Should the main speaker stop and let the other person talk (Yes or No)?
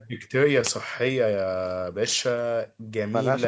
No